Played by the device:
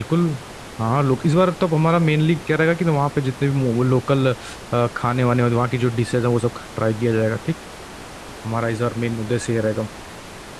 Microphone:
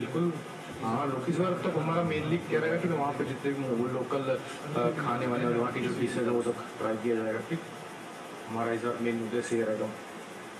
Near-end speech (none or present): present